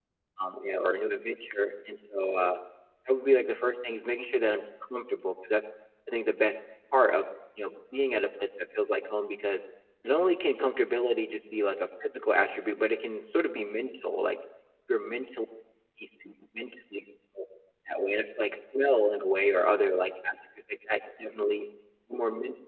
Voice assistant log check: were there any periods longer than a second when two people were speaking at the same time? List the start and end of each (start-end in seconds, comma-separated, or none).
none